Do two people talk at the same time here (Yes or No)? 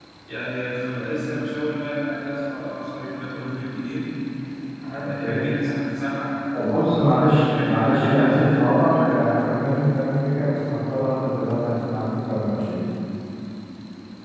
Yes